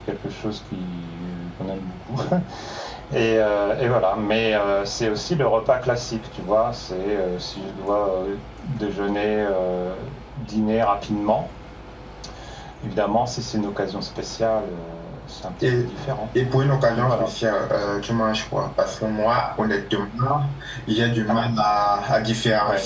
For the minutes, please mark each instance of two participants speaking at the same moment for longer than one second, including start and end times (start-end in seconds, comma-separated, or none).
none